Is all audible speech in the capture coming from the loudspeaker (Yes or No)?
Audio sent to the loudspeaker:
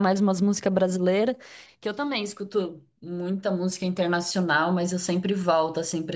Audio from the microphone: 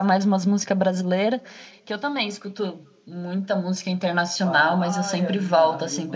No